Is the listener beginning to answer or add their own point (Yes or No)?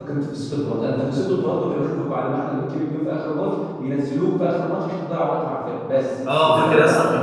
Yes